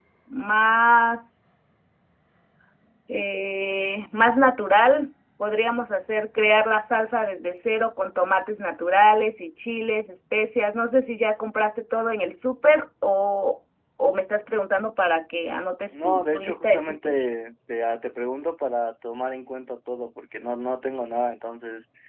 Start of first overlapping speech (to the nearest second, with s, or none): 16 s